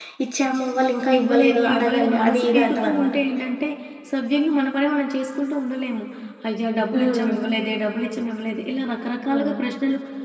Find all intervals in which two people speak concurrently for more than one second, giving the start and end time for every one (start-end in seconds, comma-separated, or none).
1.2-3.1